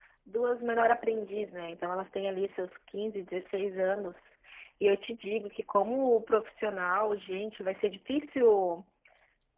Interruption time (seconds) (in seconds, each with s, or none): none